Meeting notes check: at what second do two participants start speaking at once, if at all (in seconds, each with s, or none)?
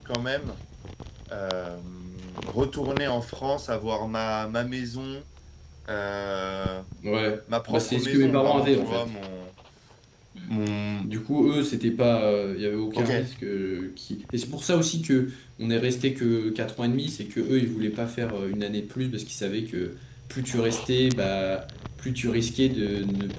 7.7 s